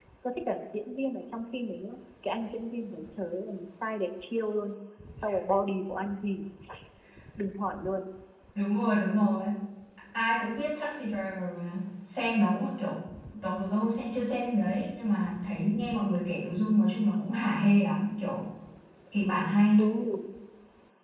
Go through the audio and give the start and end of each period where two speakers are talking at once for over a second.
none

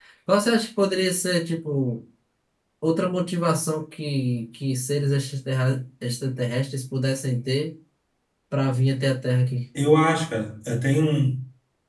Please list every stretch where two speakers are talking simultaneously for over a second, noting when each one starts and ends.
none

